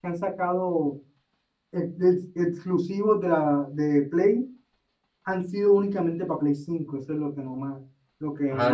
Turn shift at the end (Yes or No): Yes